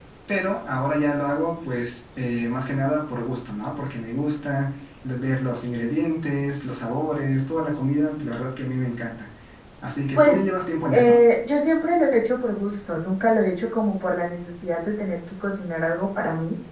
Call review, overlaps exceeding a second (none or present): none